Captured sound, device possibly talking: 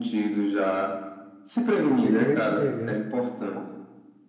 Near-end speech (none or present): present